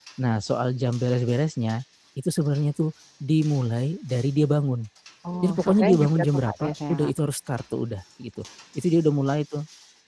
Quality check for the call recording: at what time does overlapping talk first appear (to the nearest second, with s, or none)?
5 s